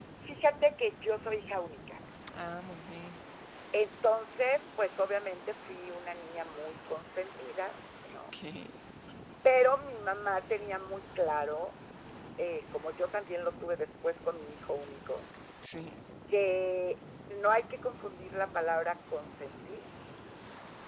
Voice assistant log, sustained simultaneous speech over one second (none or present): none